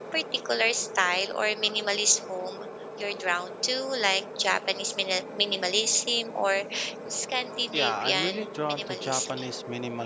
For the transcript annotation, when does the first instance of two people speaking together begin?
7.7 s

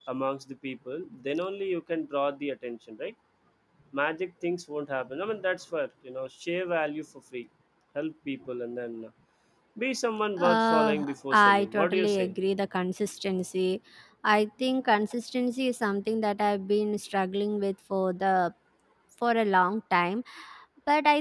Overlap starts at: 10.4 s

